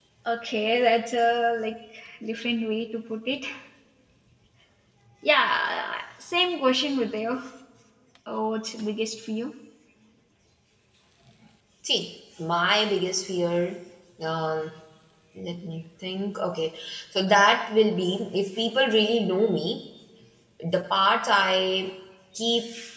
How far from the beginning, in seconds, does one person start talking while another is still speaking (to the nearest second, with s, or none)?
none